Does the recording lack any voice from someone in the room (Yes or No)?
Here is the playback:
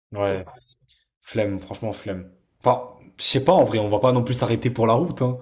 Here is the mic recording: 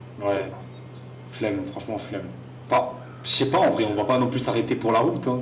Yes